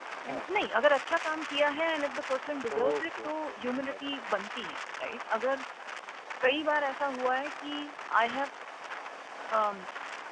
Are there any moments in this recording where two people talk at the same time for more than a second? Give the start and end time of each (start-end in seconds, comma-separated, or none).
2.7-4.1